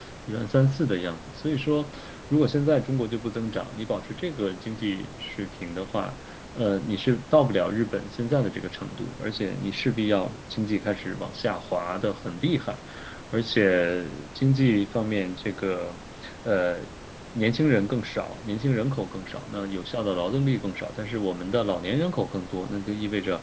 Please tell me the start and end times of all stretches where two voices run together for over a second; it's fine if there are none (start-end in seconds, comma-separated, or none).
none